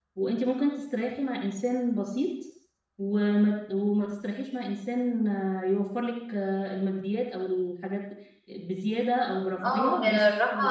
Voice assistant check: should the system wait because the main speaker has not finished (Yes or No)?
No